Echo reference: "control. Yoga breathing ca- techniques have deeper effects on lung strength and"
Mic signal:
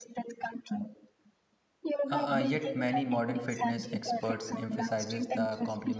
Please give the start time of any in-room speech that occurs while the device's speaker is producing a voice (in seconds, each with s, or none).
2.1 s